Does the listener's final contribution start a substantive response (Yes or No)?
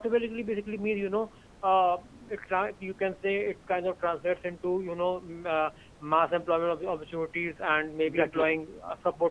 No